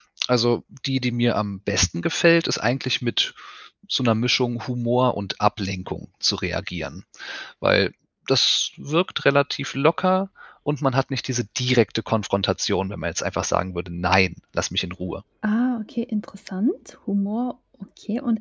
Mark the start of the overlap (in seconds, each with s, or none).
none